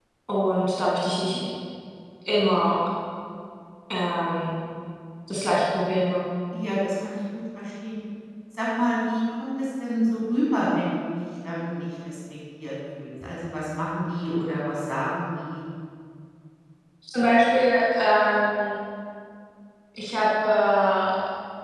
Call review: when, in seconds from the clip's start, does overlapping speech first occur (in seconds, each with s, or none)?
none